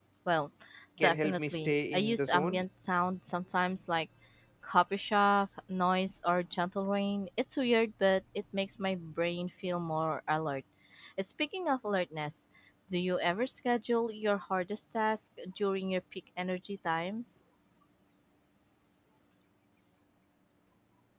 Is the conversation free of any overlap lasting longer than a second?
No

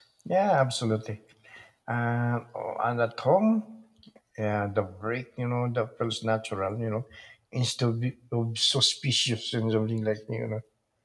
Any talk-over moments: No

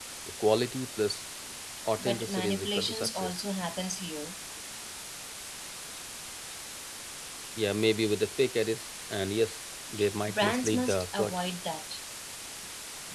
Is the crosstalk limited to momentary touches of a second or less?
No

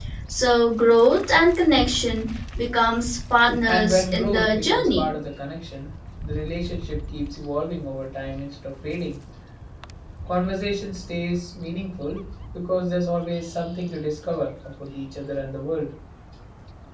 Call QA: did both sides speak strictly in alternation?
No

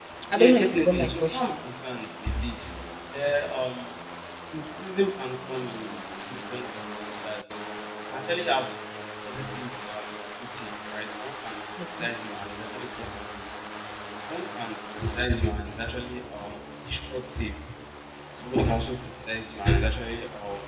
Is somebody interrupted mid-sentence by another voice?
Yes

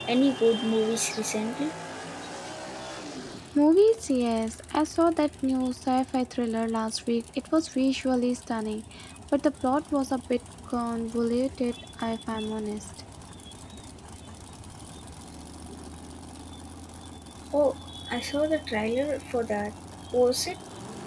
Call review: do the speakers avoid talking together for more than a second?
Yes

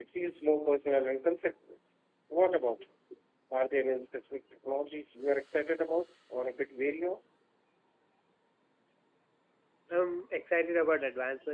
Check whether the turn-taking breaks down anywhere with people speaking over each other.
No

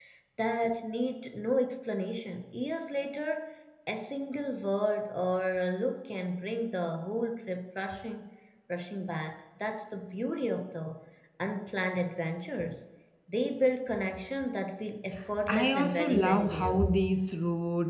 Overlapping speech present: Yes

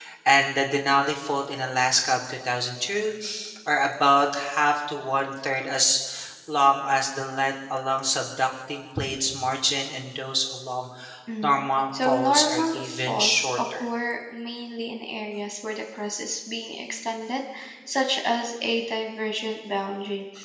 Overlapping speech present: Yes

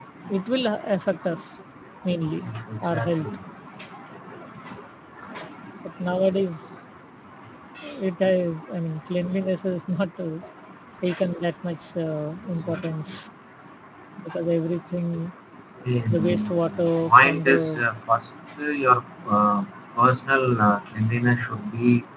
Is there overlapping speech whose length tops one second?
Yes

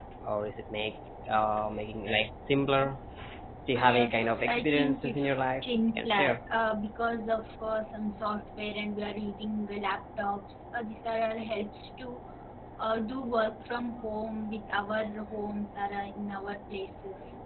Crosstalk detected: Yes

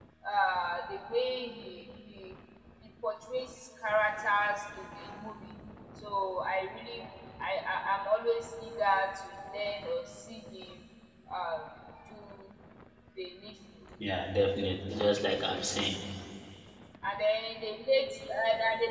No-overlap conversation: Yes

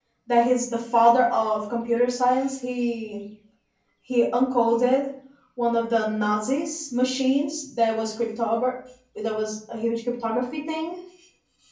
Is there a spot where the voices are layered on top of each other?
No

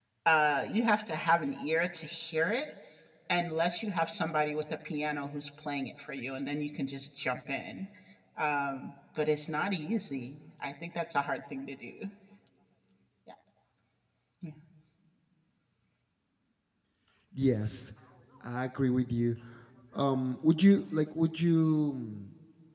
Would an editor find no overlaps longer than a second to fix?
Yes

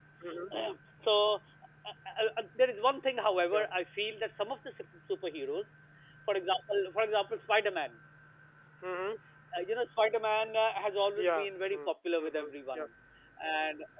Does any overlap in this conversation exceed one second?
Yes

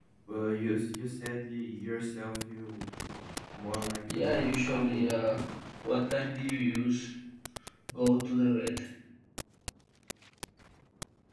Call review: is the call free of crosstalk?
No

